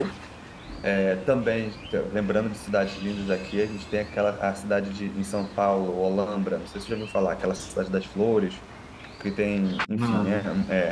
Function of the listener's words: listening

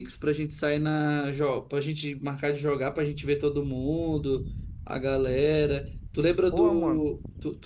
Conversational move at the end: listening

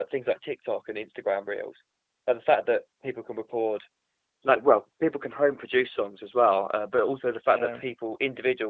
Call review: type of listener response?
listening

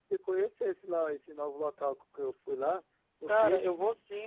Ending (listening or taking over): taking over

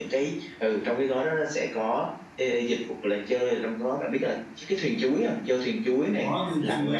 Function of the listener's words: taking over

